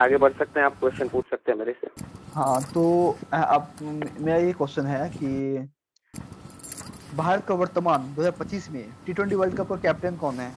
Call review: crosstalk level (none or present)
none